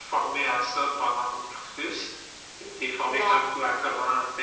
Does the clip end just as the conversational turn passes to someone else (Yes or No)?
No